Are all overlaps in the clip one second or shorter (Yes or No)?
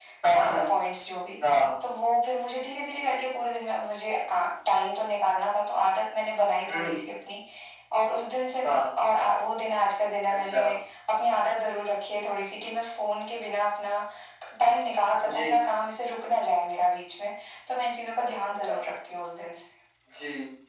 Yes